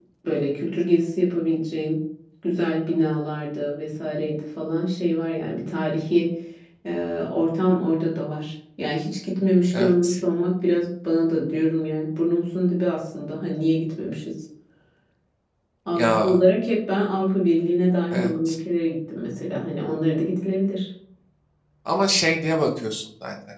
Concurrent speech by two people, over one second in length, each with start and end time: none

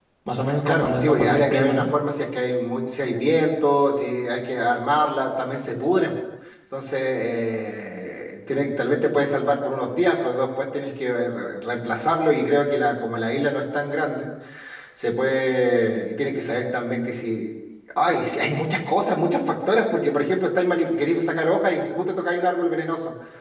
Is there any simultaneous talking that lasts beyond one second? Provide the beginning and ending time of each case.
0.7-1.9

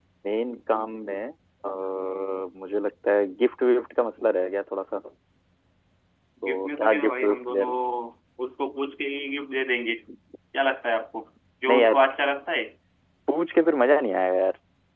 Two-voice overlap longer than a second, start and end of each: 6.5-7.7

